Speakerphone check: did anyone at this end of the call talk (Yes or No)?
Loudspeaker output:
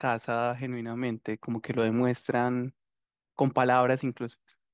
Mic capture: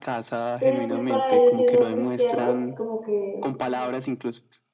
Yes